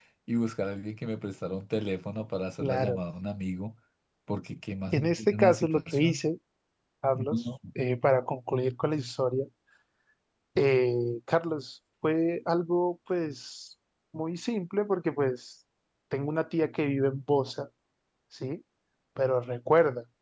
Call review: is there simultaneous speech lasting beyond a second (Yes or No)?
Yes